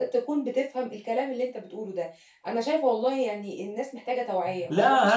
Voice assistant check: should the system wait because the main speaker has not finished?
No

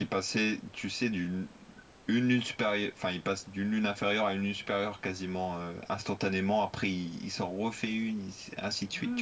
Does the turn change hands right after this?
Yes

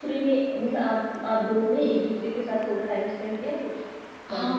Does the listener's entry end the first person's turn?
Yes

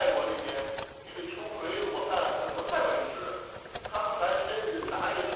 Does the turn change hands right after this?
No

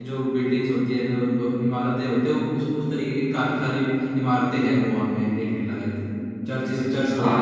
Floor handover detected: Yes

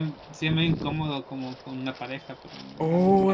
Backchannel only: No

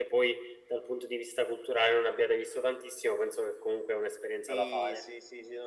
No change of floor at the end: No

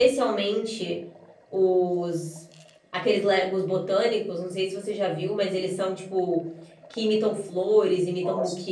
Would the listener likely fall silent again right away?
Yes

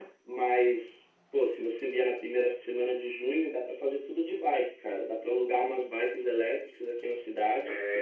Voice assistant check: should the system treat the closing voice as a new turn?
Yes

